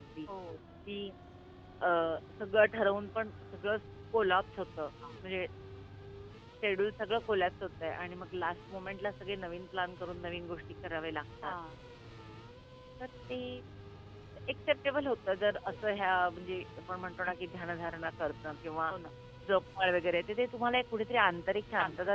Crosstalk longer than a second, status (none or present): none